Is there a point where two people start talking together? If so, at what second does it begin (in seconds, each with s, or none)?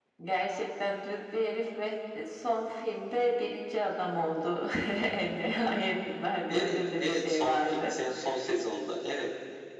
6.5 s